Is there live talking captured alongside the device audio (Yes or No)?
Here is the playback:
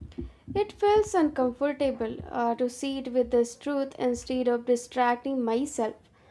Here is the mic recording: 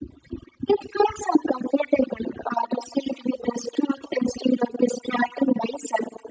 No